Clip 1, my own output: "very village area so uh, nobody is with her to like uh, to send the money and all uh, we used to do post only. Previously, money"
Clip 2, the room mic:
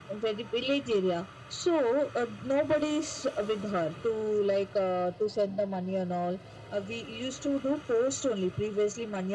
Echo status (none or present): present